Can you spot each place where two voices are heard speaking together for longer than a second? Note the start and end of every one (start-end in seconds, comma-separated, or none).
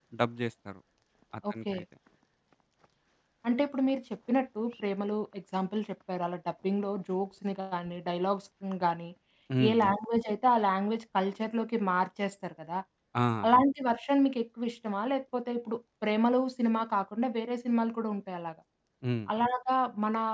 none